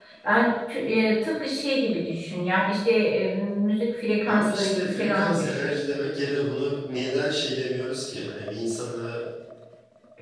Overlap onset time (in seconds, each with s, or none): 4.3 s